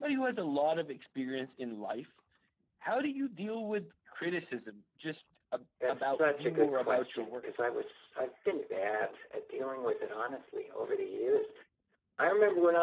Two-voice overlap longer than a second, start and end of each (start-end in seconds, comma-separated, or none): 5.9-7.4